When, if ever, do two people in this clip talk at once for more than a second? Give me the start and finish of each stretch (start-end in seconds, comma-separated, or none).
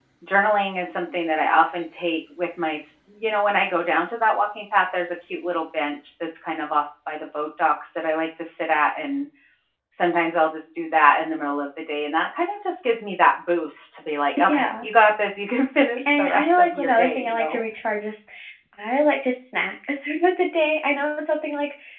16.1-17.6